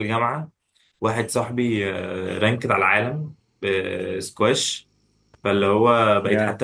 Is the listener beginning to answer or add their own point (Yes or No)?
No